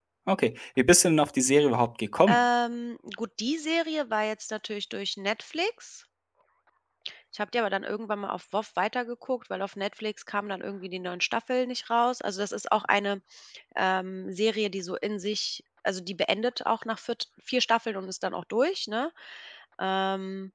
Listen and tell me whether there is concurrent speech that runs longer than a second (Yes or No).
No